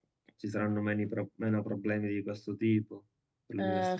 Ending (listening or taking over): taking over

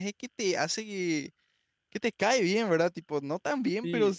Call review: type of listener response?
listening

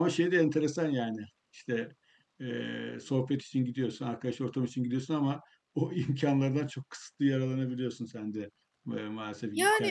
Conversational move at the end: taking over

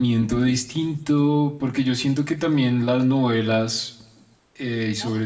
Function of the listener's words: listening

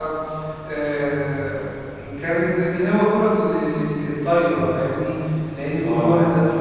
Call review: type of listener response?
listening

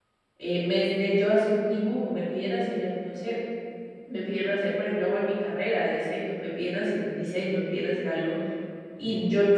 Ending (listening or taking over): listening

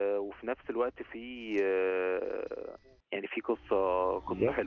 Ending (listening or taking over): taking over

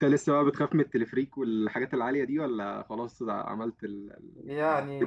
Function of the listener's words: taking over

